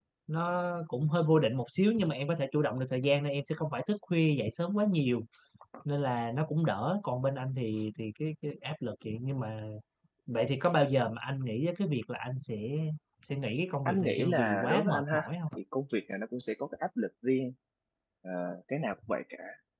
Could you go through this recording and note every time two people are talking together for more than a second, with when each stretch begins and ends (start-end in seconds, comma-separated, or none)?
13.8-15.6